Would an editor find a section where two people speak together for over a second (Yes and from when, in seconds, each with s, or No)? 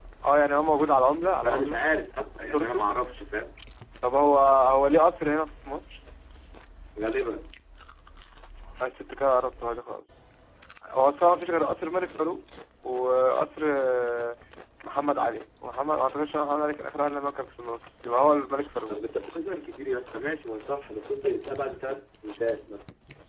No